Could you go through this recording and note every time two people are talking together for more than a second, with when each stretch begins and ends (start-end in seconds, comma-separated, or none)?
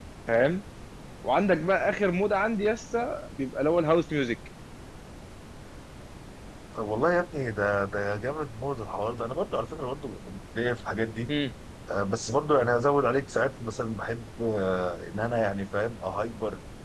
none